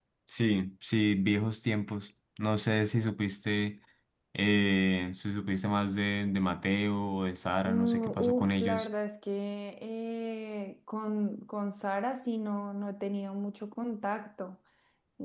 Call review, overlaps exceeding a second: present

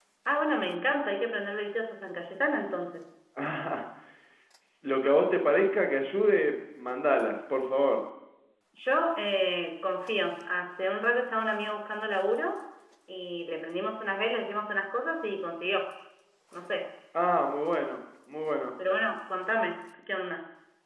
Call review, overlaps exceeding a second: none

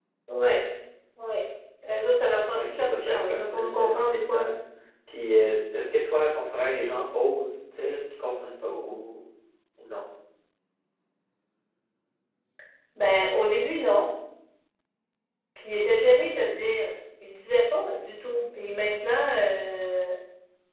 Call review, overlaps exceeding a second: present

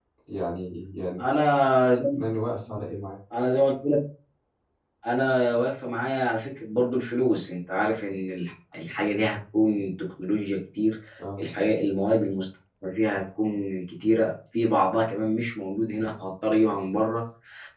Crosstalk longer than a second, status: none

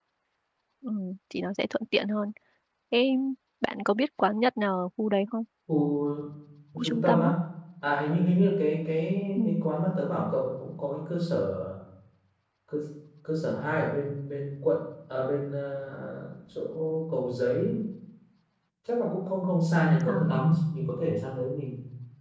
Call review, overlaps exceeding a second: none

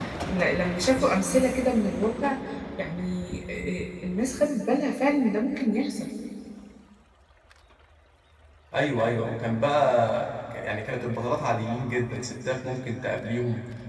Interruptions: none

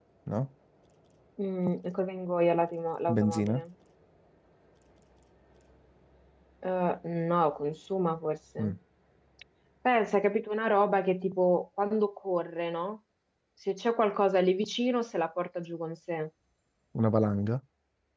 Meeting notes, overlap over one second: none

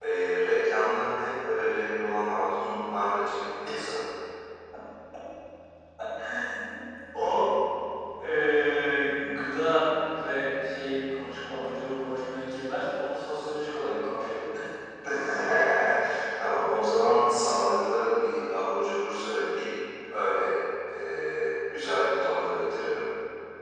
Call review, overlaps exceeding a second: none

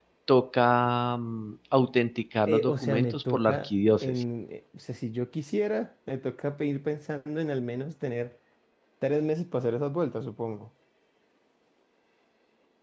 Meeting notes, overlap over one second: present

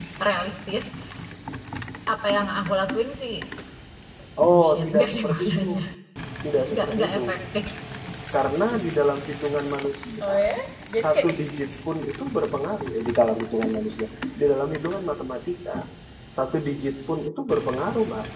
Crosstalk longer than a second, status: present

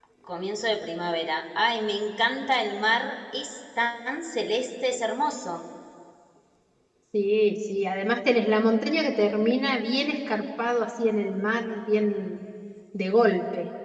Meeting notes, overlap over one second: none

